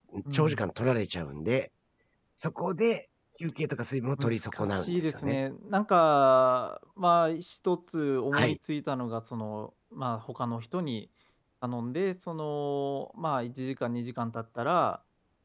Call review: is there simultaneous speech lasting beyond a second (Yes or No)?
Yes